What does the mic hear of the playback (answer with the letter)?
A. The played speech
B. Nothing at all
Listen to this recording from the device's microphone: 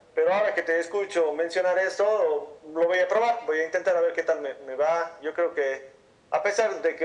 A